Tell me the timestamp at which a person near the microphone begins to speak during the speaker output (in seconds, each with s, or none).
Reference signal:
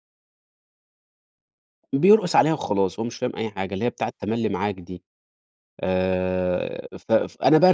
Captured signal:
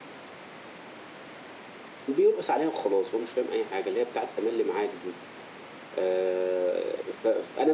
none